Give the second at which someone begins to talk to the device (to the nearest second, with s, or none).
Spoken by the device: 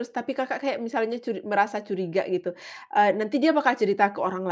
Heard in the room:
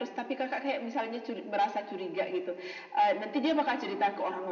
none